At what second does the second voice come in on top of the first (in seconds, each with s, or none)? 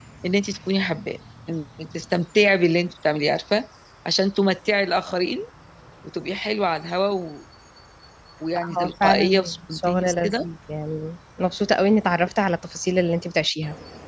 8.8 s